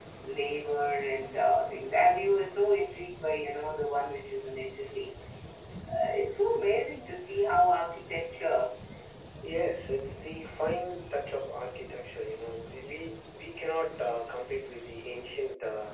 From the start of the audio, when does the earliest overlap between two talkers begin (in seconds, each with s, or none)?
none